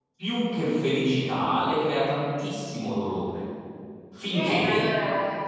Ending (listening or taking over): taking over